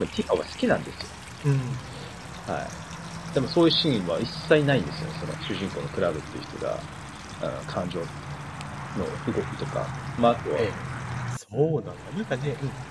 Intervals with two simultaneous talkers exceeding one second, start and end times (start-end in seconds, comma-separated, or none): none